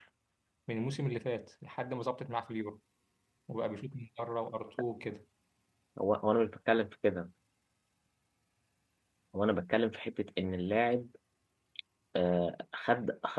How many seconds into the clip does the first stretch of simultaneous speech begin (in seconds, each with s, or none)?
none